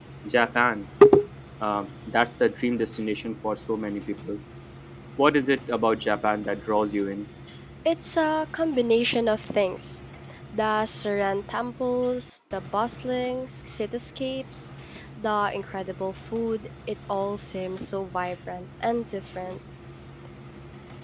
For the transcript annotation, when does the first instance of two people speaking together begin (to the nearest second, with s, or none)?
none